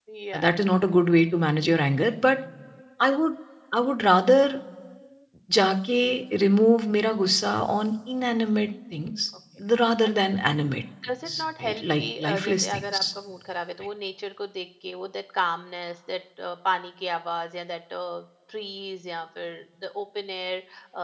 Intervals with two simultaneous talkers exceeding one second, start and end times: 11.3-13.0

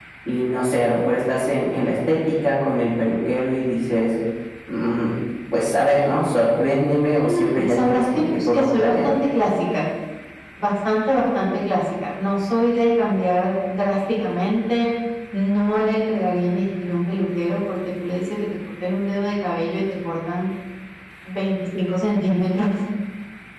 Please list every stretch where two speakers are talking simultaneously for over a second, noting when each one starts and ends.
7.2-9.2

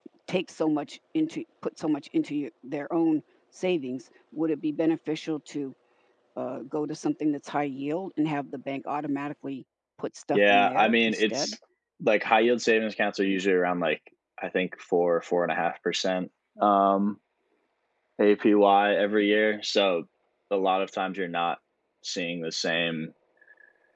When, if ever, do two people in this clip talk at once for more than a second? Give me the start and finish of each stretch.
10.3-11.5

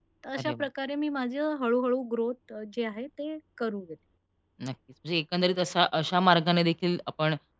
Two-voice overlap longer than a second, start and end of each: none

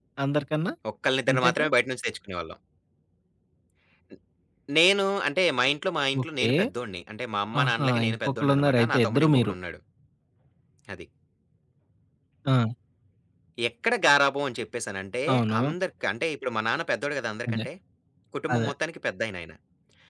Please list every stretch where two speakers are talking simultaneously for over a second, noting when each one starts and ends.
7.6-9.6

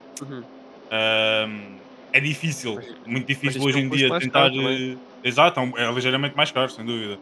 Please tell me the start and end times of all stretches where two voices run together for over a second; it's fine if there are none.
3.4-4.8

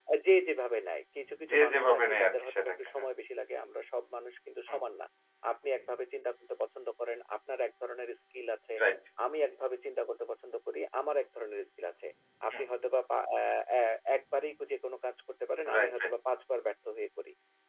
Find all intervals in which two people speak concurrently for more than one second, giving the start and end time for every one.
1.5-3.0

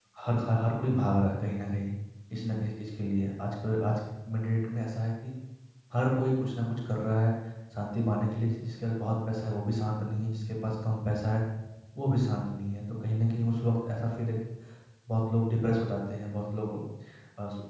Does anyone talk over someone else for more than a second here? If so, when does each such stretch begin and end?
none

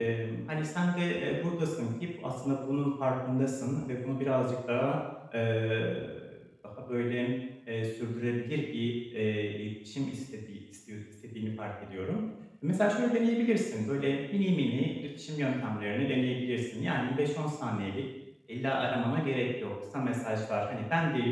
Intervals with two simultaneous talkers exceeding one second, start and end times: none

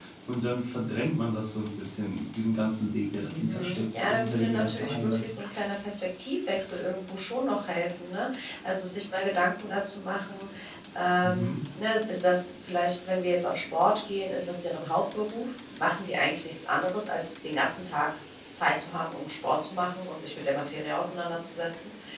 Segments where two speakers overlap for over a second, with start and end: 3.4-5.3

